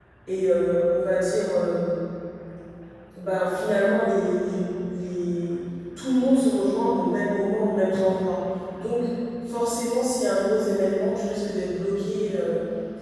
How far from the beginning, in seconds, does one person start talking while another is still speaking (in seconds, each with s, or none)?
none